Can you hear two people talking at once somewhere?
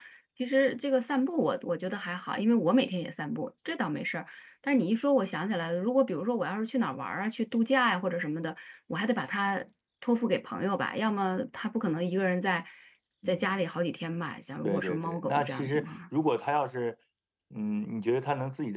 Yes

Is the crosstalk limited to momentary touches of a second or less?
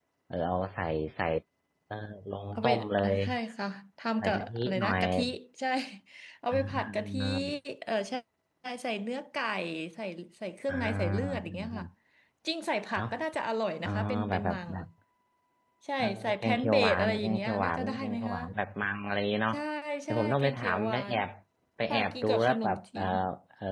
No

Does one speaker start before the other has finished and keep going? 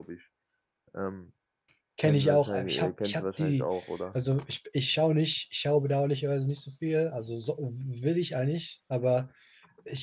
Yes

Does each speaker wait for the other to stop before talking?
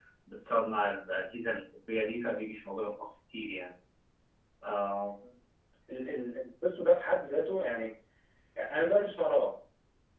Yes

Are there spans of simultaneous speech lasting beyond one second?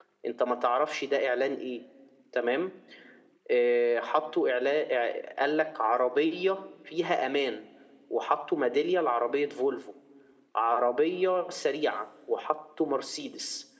No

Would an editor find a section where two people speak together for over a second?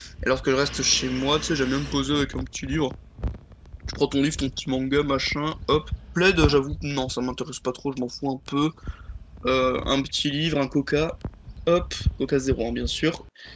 No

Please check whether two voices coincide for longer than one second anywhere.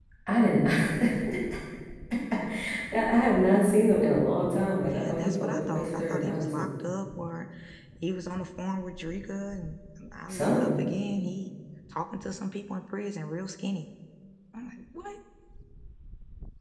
Yes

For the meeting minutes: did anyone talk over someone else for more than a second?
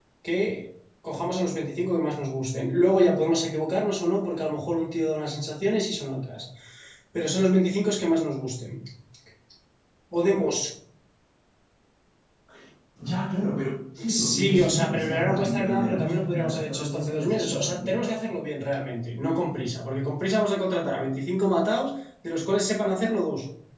Yes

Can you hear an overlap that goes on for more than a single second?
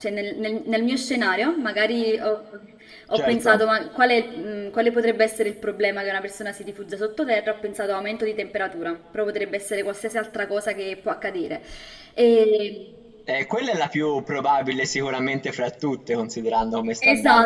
No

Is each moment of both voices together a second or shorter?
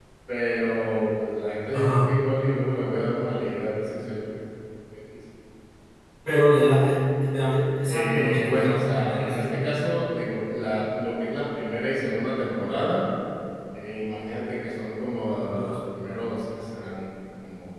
No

